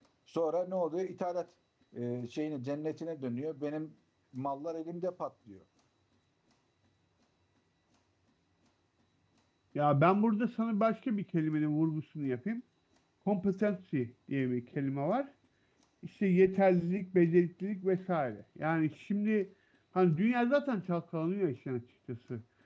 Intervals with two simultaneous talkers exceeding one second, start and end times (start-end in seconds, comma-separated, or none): none